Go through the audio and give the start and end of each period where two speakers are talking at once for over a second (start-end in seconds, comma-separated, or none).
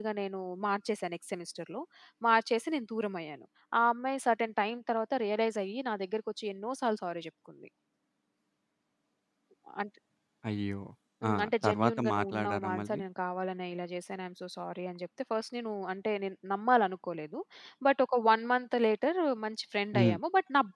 11.3-13.0